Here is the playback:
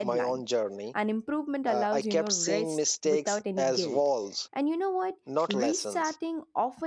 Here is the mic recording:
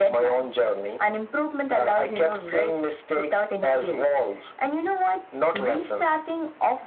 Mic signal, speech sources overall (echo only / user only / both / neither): echo only